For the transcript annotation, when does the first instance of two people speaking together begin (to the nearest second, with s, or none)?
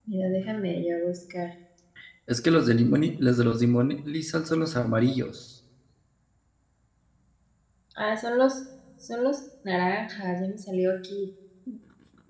none